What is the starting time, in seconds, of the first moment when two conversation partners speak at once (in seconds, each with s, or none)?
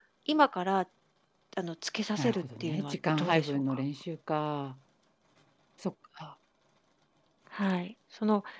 2.2 s